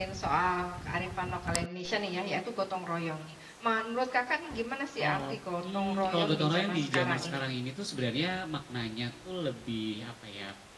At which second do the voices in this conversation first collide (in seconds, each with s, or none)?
5.0 s